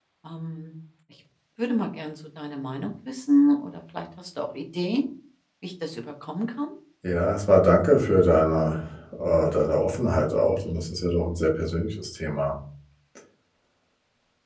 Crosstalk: none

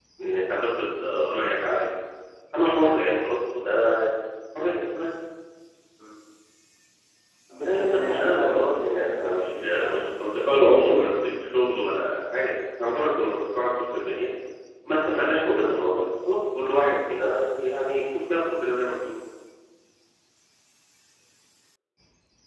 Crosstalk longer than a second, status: present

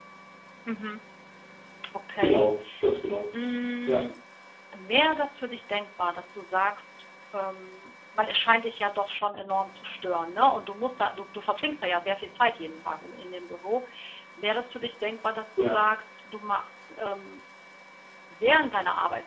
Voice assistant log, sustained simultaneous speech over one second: none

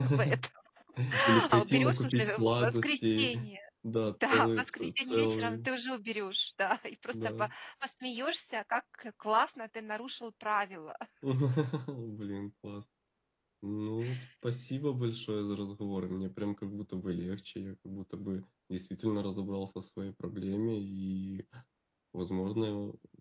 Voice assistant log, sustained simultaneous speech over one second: present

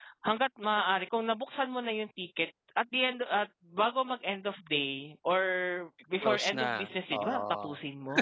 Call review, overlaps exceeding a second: present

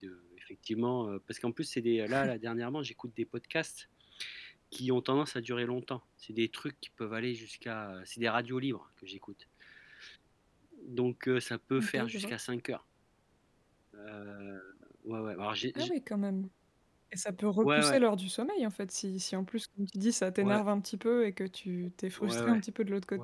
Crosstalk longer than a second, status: none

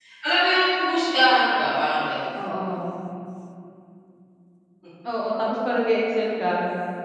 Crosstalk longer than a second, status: none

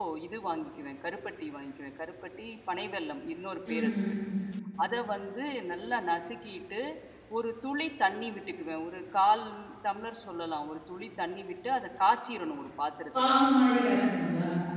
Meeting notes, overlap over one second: none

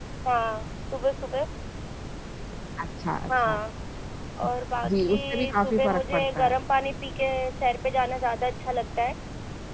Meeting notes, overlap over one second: present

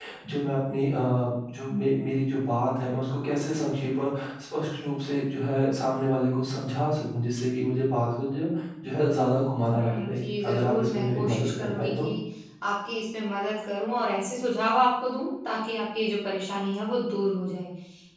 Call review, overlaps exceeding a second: present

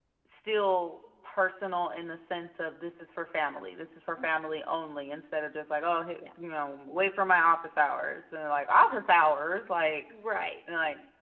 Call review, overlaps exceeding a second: none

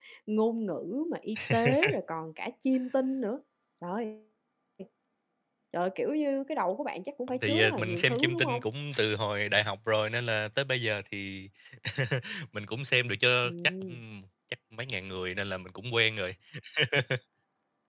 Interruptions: present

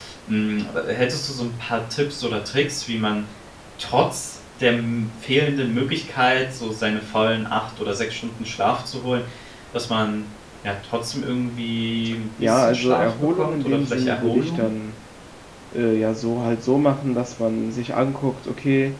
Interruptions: present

